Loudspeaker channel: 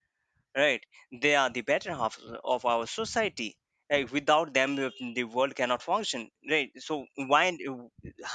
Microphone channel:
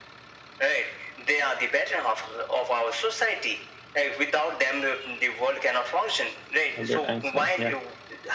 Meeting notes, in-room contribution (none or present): present